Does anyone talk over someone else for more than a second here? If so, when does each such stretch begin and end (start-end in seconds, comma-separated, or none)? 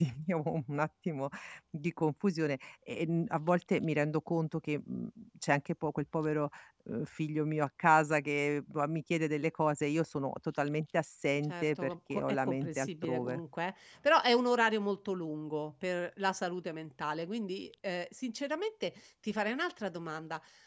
11.4-13.4